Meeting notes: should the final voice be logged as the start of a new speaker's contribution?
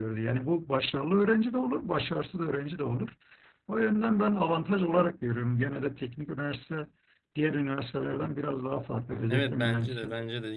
Yes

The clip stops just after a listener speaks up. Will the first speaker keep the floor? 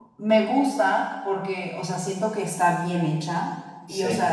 Yes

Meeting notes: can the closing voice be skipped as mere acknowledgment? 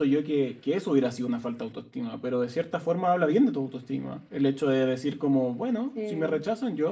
Yes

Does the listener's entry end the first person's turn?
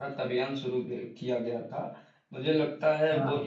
No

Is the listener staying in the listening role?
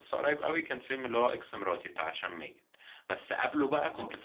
Yes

